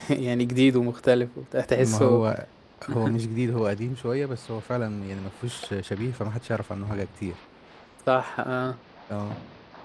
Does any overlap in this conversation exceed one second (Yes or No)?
No